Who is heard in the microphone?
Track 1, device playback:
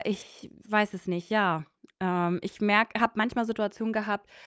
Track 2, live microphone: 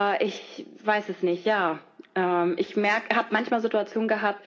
echo only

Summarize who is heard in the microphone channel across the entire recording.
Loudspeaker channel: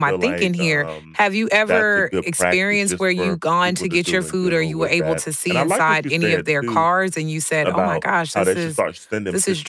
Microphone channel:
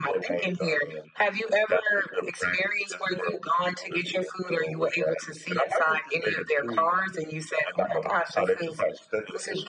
echo only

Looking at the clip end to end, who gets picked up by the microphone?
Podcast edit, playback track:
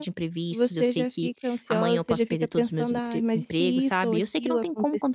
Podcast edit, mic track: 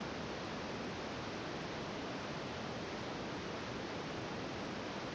neither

